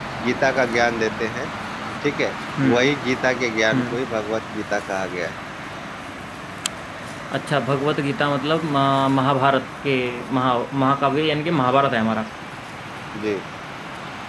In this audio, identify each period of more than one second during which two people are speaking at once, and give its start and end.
none

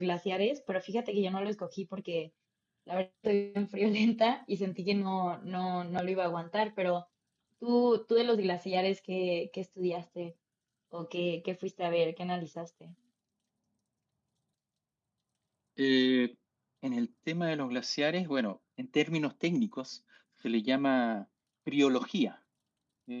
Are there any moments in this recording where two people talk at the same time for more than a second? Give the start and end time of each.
none

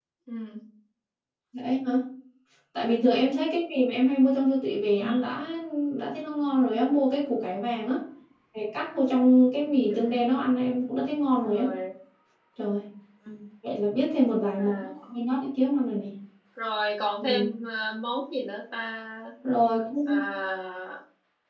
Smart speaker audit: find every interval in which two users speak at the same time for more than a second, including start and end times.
none

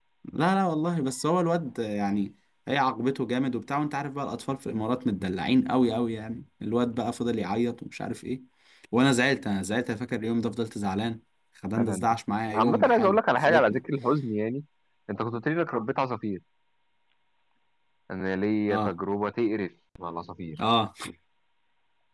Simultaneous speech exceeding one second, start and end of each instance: 12.6-13.8

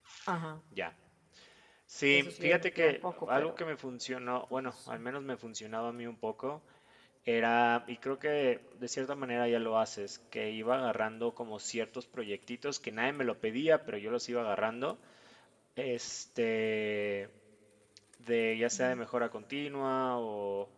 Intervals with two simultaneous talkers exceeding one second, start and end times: 2.1-3.5

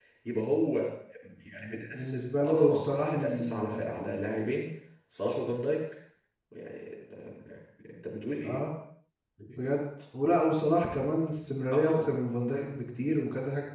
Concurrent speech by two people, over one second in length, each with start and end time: 1.9-3.6

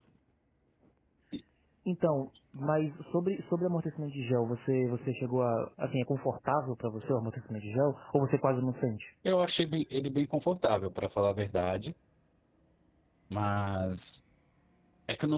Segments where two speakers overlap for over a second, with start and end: none

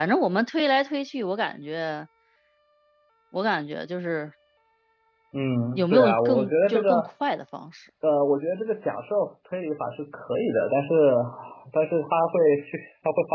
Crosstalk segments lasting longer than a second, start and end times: 5.7-7.1

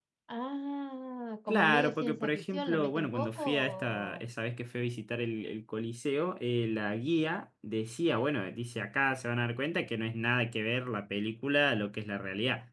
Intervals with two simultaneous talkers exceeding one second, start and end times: 1.5-4.2

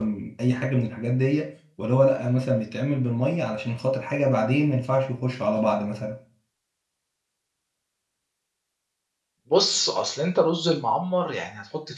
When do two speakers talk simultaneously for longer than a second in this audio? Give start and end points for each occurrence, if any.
none

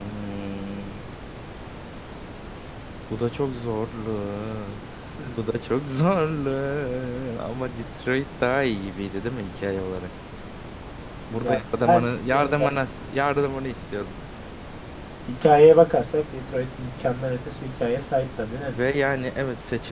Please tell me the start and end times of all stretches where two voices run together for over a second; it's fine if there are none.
11.3-12.8

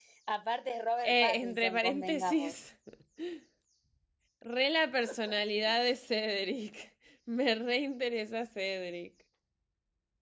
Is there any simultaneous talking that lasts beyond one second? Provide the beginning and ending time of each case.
1.0-2.5

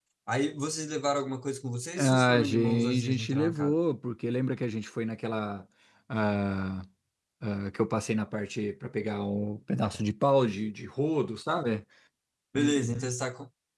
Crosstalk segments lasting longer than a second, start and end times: 2.0-3.8

